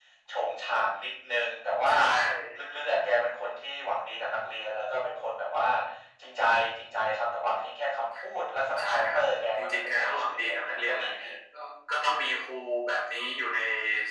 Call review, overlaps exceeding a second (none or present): present